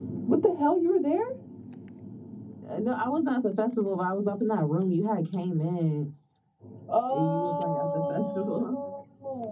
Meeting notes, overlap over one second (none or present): present